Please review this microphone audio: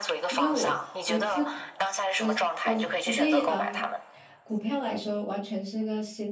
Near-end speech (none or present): present